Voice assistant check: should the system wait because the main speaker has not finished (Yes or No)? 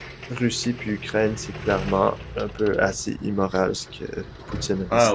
No